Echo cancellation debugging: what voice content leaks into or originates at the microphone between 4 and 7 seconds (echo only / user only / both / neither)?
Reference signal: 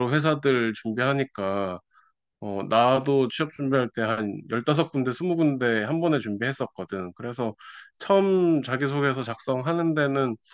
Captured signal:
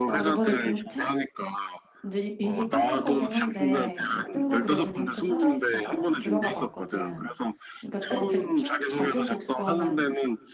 both